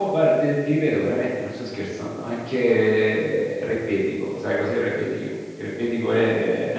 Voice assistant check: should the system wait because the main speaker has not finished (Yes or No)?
Yes